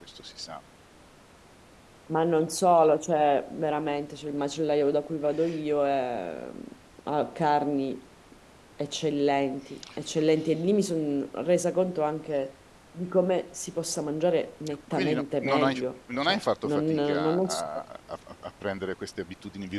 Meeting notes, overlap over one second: present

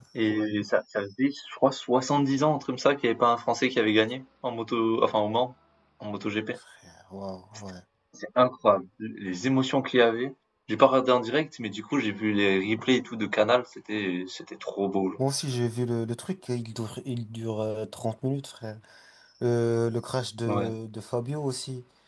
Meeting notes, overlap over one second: none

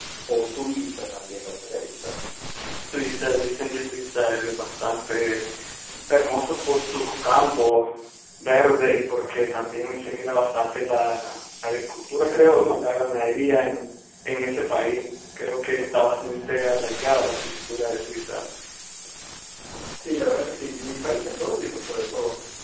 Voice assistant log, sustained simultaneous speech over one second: none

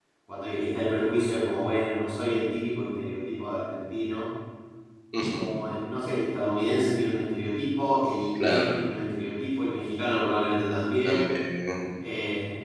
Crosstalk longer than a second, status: none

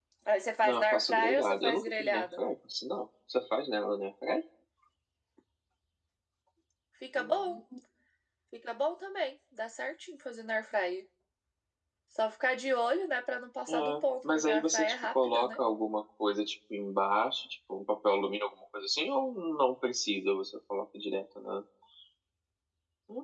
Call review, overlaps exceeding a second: present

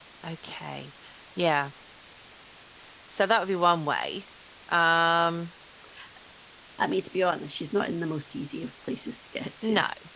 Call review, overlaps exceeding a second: none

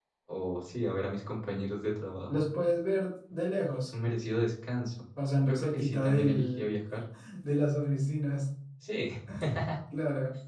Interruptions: present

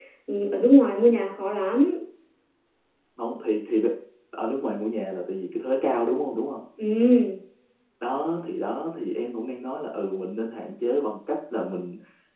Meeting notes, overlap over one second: none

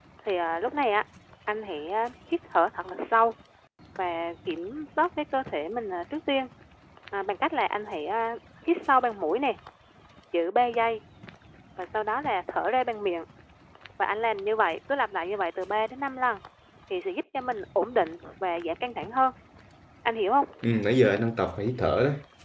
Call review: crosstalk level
none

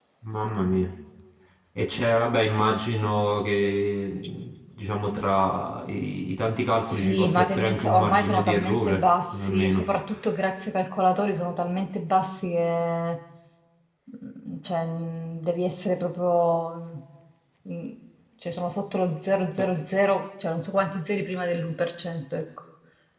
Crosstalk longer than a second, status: present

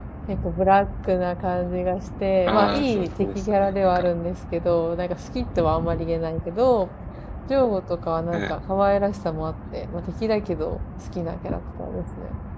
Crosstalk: present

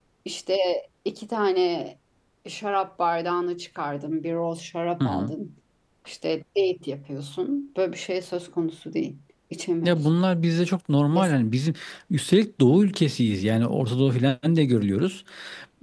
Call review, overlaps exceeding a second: none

